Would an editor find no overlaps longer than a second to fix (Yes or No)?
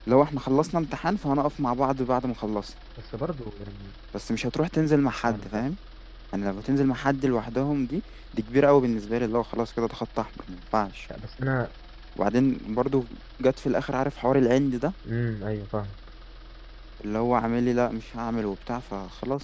Yes